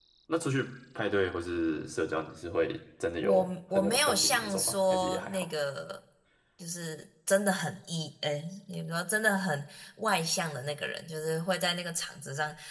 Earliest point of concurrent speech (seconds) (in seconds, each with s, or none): 3.2 s